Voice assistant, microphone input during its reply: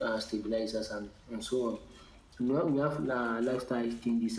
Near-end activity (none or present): none